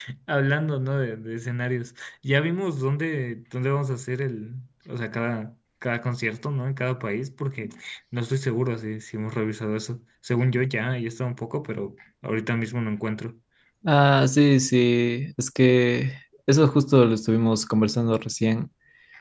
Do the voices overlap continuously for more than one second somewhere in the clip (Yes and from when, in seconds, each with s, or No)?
No